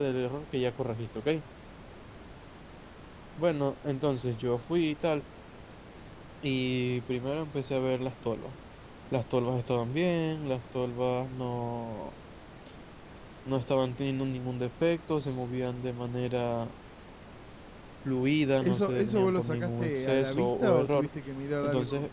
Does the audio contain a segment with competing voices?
Yes, from 18.6 s

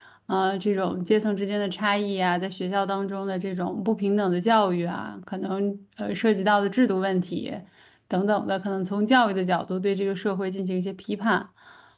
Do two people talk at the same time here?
No

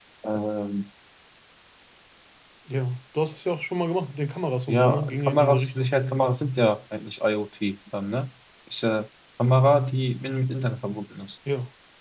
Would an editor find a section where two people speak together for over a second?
Yes, from 4.7 s

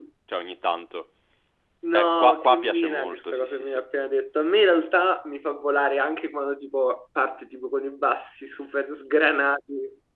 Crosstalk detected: Yes, from 1.9 s

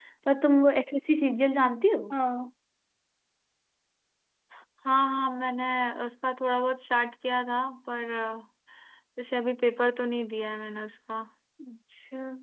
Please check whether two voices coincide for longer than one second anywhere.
No

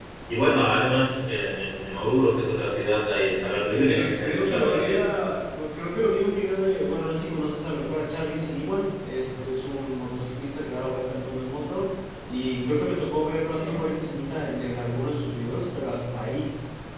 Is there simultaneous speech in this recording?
Yes, from 3.7 s

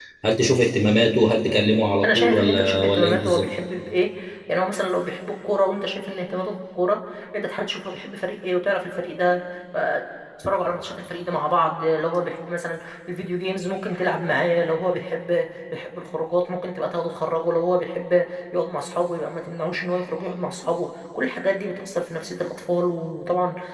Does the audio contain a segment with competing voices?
Yes, from 2.0 s

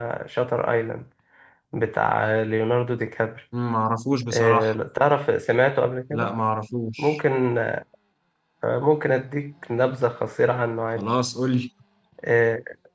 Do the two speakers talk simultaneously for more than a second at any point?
No

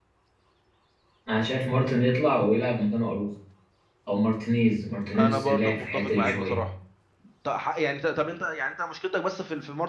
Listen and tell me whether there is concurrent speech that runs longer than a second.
Yes, from 5.1 s

